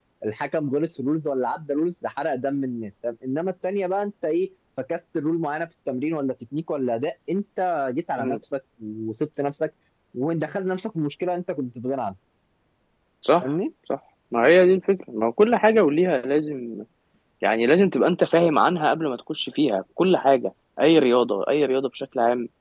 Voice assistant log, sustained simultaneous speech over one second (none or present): none